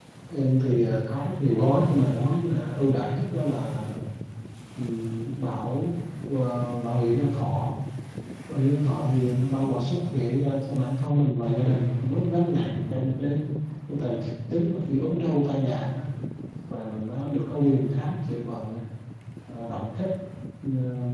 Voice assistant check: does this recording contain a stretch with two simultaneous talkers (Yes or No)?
No